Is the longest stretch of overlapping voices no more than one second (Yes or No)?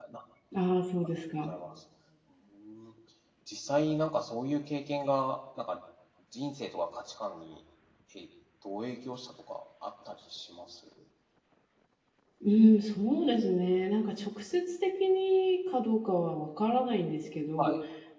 Yes